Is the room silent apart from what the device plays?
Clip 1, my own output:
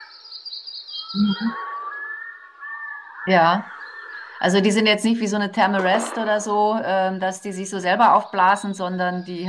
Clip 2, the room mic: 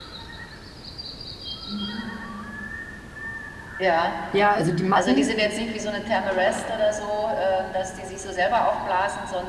No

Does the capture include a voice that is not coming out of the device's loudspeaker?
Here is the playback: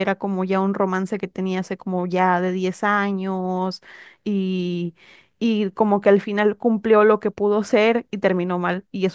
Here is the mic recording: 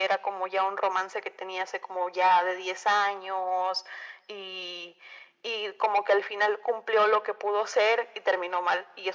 No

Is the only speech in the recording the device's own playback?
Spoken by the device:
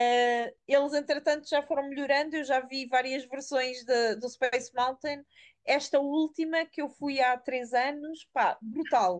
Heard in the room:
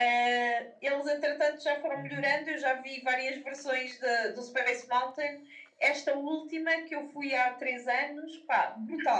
No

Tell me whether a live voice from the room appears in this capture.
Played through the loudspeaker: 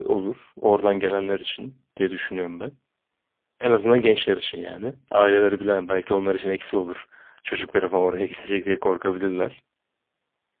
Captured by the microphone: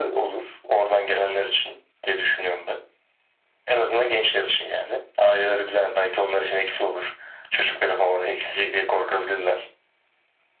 No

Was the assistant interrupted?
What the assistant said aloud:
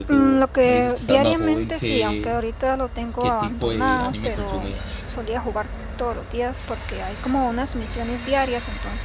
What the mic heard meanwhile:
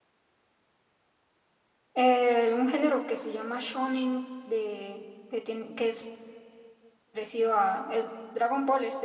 Yes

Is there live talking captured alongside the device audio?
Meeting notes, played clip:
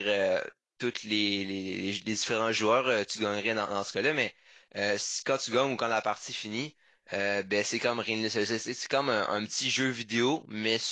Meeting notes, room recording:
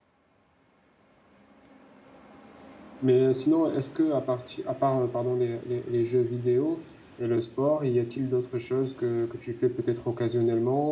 Yes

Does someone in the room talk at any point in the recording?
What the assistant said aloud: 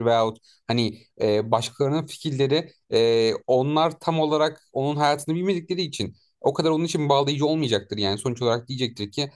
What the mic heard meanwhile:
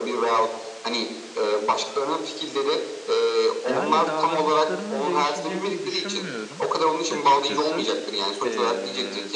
Yes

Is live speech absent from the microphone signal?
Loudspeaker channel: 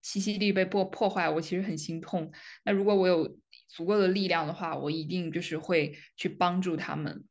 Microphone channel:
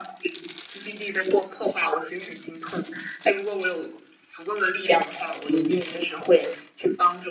Yes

